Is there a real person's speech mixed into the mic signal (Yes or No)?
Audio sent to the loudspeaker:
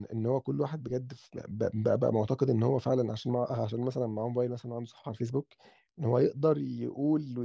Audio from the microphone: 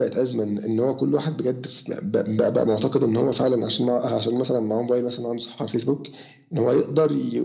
No